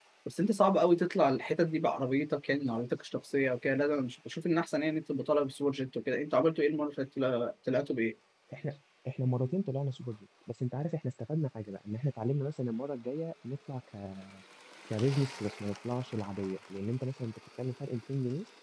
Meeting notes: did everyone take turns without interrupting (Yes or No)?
Yes